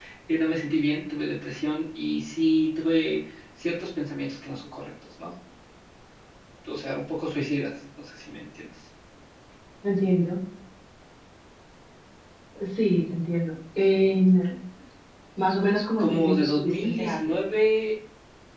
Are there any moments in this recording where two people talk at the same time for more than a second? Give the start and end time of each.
16.0-17.2

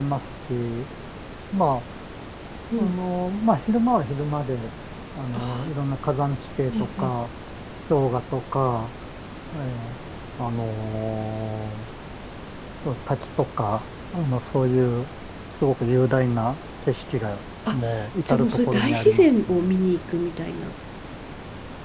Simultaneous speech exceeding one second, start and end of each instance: 18.3-19.7

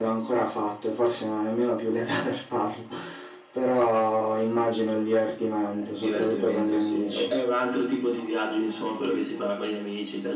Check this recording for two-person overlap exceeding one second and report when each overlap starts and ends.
5.8-7.3

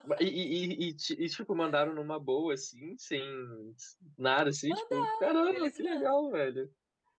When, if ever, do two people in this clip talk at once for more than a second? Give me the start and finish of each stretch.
4.7-6.2

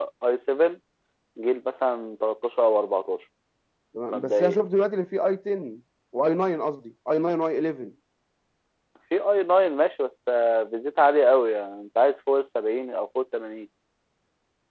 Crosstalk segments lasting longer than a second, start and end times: none

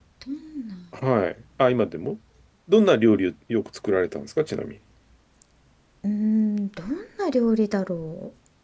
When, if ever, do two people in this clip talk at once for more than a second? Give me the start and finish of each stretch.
none

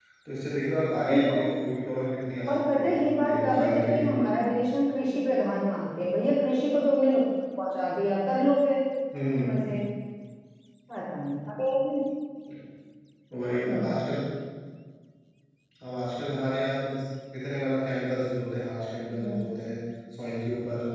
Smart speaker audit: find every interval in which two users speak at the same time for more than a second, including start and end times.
2.5-4.2

